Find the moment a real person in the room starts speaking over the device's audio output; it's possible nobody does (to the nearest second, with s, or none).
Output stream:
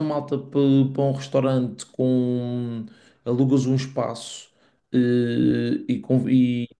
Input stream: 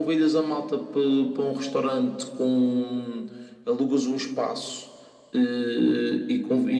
none